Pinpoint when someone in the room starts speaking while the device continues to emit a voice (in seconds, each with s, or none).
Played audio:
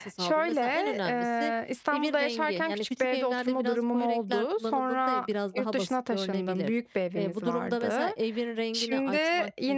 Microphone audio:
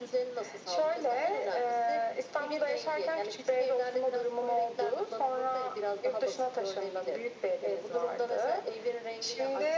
none